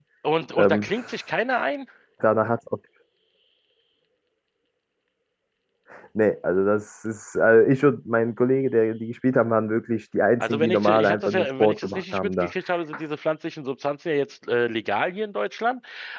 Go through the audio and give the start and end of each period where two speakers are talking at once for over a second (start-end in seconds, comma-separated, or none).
10.4-12.5